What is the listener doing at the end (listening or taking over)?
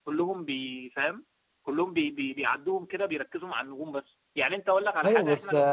taking over